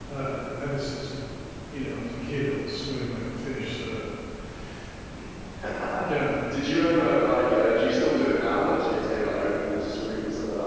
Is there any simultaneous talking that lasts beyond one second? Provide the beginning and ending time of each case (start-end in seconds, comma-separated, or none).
none